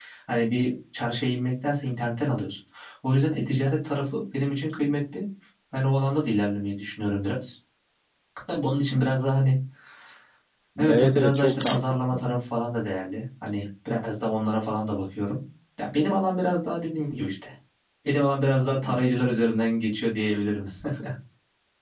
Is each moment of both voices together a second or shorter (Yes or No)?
No